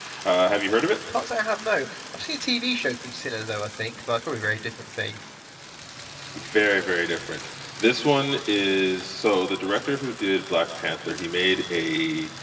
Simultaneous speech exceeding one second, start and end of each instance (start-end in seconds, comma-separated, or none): none